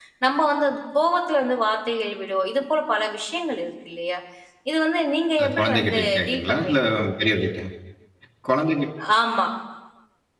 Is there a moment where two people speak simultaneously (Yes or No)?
Yes